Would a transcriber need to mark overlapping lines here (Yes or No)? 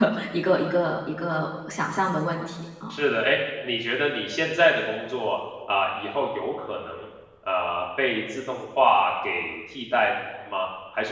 No